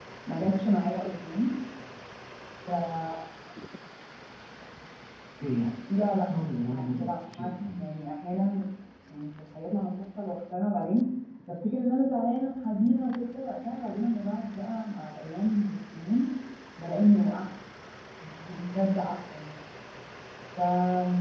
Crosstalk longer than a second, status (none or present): present